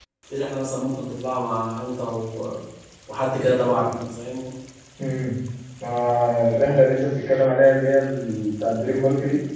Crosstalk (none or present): none